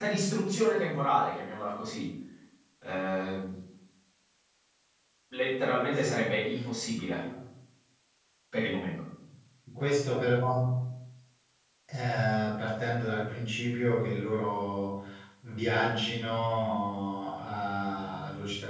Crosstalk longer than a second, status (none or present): none